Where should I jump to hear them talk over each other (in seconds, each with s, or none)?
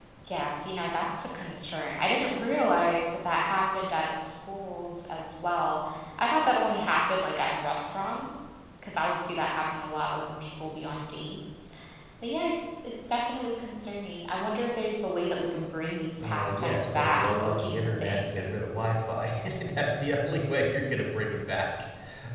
16.2 s